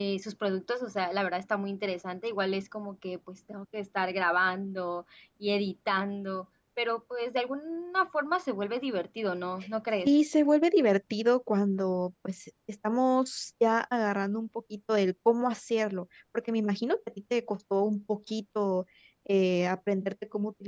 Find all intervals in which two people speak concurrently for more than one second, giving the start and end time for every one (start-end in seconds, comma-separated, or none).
none